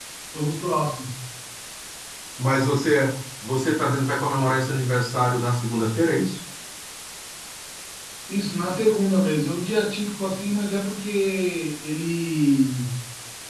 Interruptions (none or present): none